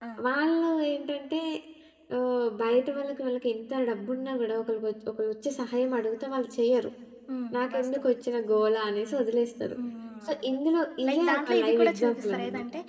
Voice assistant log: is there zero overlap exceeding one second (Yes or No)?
No